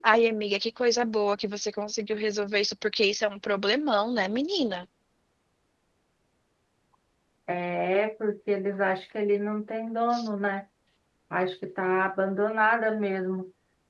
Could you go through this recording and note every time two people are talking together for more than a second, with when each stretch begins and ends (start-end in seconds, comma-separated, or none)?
none